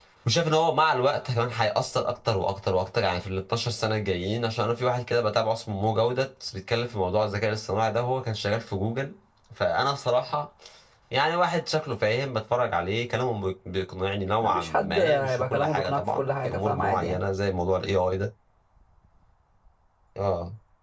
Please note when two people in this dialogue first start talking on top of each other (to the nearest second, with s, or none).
14 s